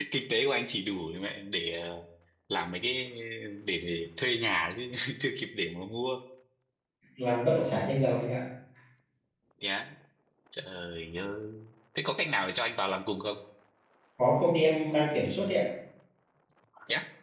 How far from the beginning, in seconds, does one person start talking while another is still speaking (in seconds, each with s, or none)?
none